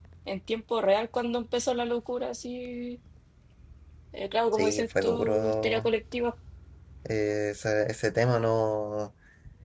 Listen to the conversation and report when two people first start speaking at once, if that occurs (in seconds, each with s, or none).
4.5 s